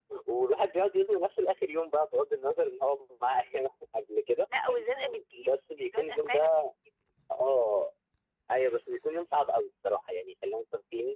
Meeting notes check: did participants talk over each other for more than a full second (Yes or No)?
Yes